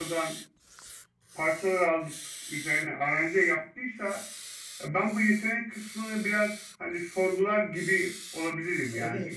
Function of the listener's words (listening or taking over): taking over